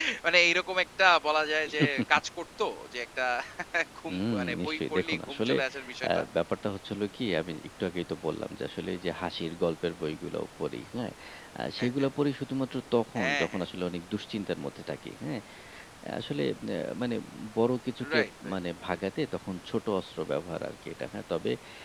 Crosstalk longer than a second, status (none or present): present